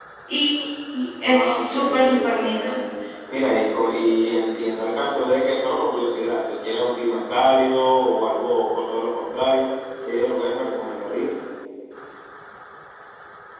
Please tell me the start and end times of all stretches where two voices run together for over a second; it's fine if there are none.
1.2-2.8

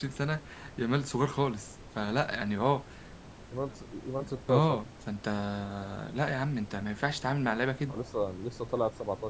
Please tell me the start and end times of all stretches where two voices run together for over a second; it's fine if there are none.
none

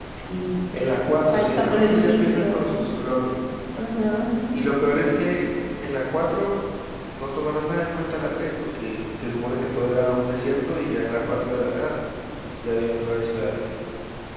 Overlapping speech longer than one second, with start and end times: 1.3-2.8

